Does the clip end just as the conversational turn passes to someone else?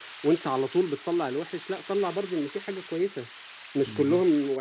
No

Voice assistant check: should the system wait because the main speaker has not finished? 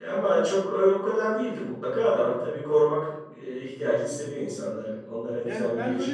No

